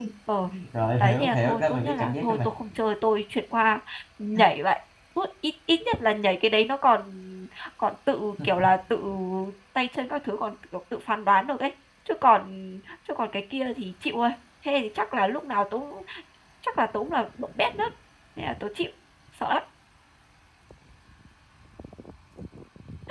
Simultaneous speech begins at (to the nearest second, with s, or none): 1 s